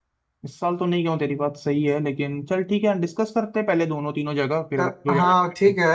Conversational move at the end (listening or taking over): taking over